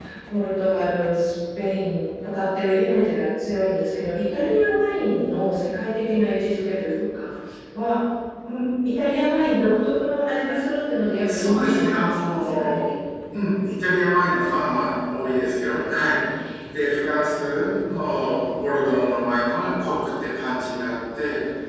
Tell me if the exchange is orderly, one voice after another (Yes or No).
No